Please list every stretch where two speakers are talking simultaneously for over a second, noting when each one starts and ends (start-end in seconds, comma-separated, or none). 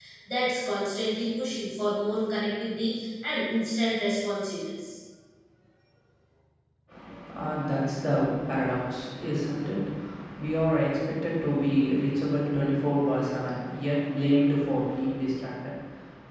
none